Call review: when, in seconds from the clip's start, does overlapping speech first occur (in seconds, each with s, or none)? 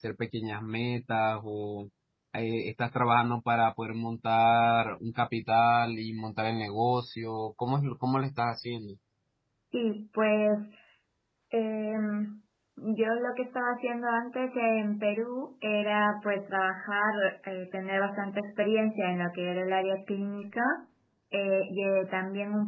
none